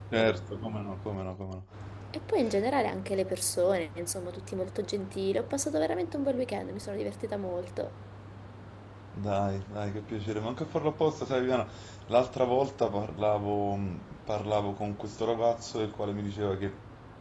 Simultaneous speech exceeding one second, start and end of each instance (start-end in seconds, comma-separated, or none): none